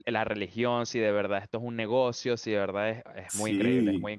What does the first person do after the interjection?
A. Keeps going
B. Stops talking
B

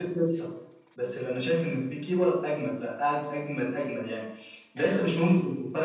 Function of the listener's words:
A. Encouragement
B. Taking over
A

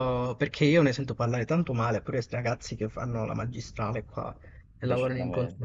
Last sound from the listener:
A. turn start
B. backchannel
B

